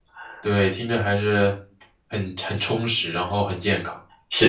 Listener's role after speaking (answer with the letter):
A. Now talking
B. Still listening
A